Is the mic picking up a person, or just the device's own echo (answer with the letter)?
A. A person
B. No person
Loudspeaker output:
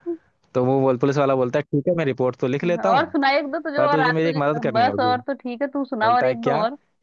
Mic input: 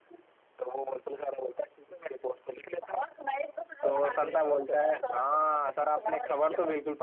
A